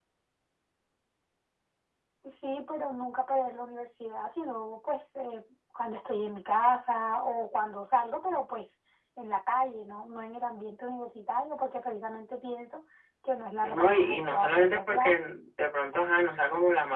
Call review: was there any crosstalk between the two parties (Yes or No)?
Yes